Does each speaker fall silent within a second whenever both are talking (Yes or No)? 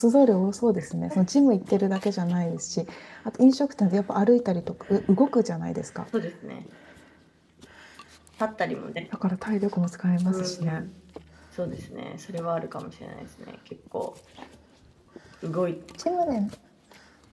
Yes